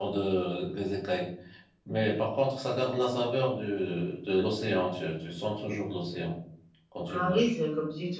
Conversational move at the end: taking over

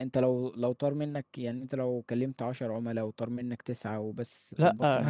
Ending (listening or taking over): taking over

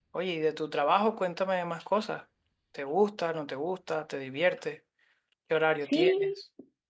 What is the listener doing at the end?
taking over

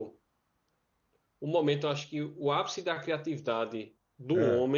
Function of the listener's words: listening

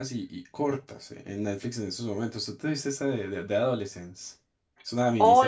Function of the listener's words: taking over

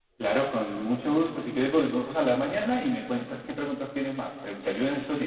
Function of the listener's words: taking over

